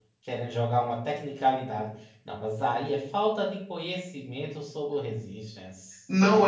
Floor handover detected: Yes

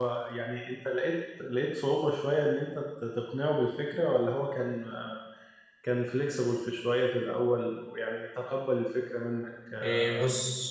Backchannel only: No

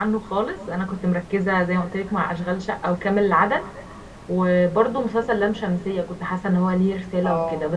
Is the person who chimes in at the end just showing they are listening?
Yes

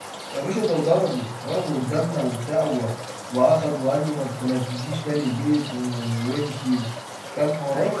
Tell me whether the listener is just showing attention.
No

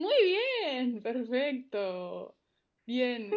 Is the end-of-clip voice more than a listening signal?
No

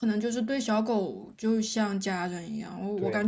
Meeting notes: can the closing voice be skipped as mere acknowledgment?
Yes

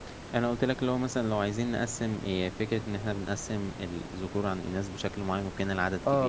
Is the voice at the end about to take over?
Yes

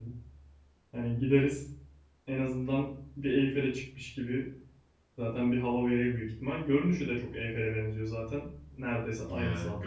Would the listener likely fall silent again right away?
No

